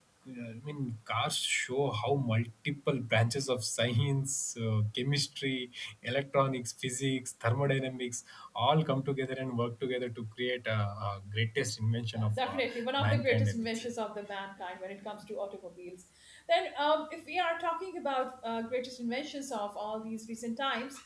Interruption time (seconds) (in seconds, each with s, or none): 12.2 s